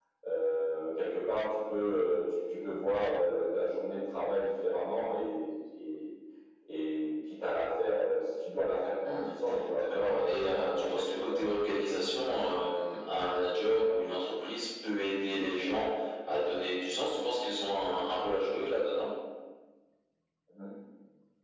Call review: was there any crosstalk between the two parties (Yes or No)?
Yes